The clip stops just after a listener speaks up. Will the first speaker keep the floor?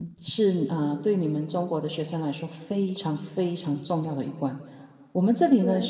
Yes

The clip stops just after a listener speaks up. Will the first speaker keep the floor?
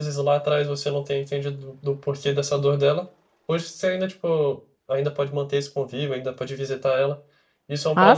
Yes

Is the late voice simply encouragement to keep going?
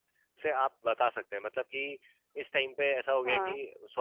Yes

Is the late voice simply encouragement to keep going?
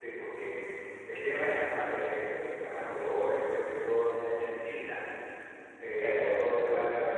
Yes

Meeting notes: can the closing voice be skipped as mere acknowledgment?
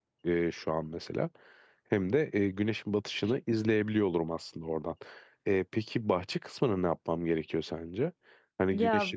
Yes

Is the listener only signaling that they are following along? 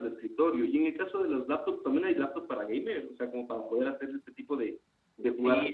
No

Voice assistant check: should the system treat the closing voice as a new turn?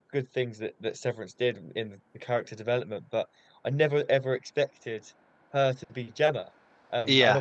No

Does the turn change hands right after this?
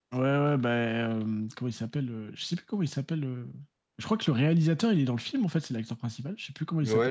Yes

